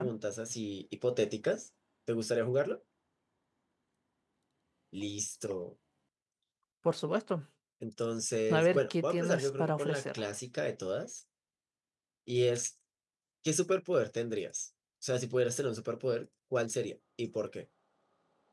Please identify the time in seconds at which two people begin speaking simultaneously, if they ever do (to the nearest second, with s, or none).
8 s